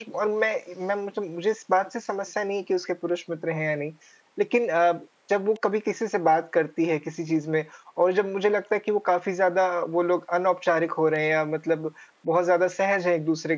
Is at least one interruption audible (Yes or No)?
No